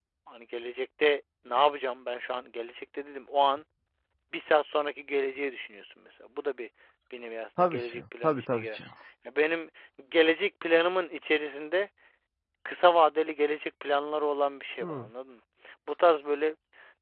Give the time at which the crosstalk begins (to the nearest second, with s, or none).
8 s